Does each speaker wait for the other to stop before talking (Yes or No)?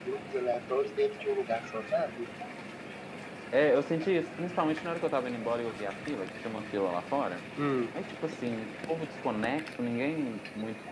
Yes